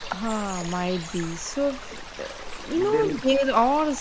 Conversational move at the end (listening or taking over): listening